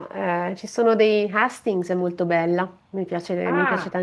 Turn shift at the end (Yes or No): No